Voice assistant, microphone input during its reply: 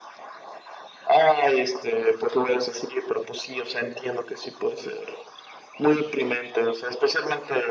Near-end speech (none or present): none